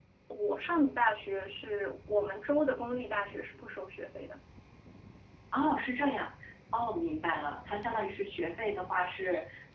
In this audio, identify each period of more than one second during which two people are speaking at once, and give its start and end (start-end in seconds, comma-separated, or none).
none